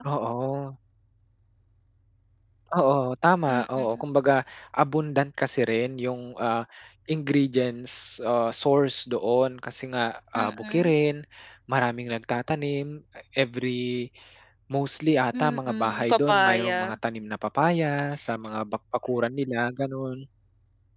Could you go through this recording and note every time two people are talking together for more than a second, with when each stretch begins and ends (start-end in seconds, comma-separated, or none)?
15.4-16.9